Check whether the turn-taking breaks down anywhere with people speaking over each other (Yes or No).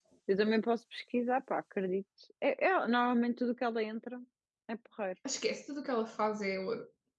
No